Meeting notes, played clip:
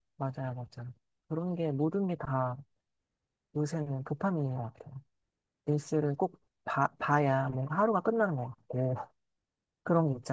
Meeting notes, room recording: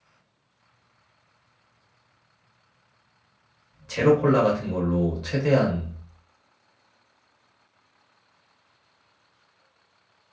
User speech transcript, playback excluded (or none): 제로 콜라 같은 걸로 최대한